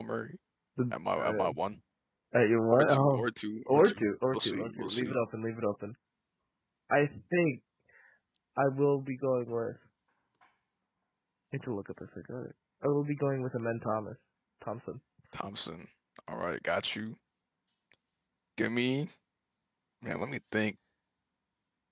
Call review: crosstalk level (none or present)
present